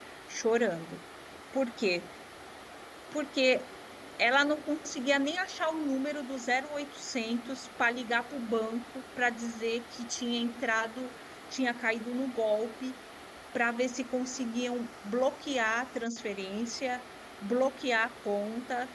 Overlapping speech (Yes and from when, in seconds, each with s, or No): No